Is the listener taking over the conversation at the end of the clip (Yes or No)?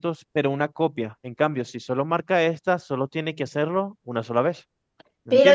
Yes